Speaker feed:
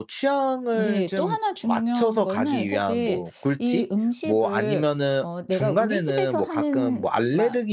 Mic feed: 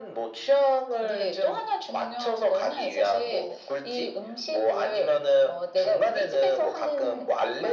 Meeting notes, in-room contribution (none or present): none